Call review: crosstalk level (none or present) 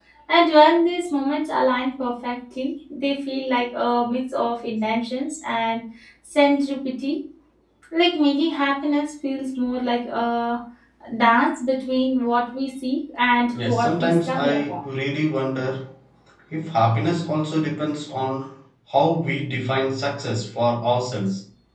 present